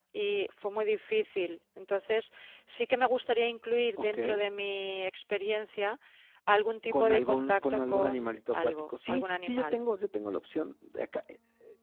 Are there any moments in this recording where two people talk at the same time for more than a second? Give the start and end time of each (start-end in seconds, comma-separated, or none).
6.9-9.7